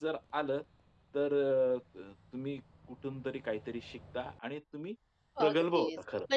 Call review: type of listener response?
taking over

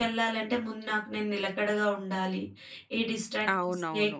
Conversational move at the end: taking over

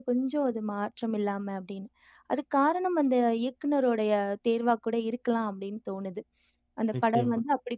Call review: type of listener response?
listening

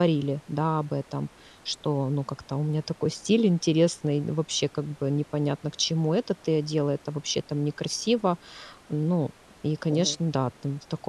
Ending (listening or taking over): listening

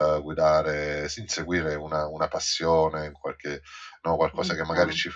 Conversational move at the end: listening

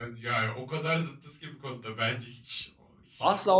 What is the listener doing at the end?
taking over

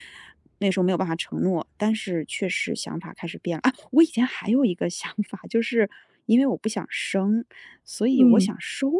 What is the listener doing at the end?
listening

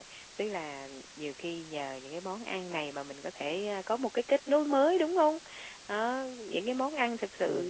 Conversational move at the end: listening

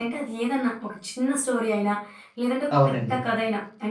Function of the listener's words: listening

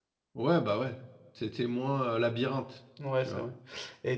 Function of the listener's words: taking over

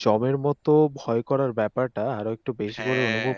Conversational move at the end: listening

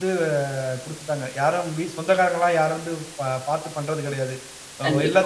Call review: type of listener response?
listening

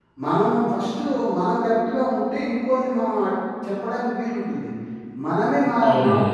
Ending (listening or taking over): listening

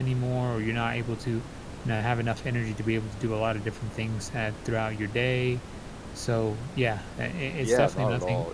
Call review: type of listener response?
taking over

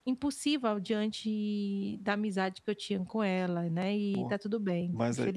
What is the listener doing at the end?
taking over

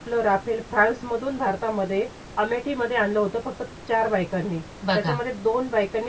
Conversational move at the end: listening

